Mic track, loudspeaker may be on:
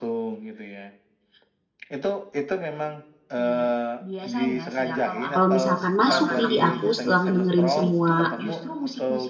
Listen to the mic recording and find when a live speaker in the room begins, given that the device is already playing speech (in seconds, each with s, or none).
5.3 s